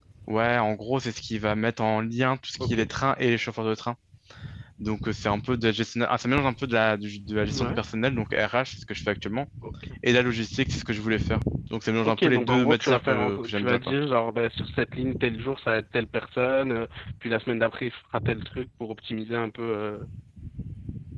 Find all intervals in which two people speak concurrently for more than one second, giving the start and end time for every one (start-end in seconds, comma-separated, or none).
12.0-13.9